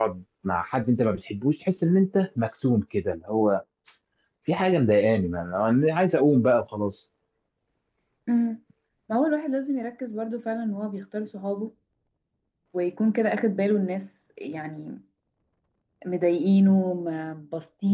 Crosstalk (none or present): none